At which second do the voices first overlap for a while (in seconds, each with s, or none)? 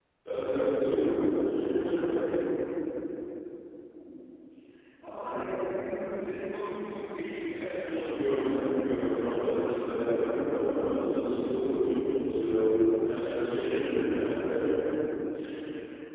8.0 s